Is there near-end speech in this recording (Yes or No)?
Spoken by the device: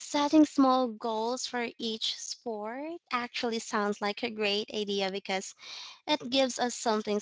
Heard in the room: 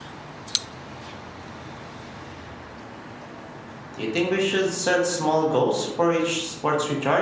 Yes